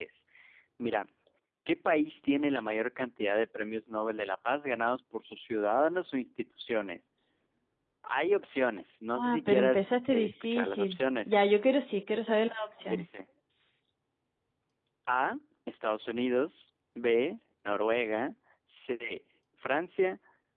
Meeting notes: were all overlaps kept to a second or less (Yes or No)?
No